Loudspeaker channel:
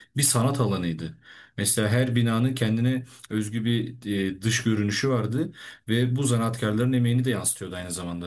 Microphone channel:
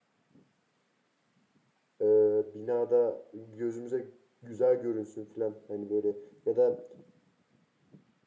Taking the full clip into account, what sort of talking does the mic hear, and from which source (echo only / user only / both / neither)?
user only